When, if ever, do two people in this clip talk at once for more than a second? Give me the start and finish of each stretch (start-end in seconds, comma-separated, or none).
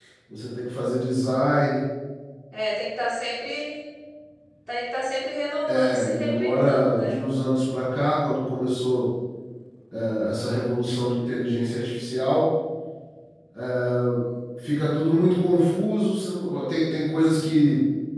5.7-7.1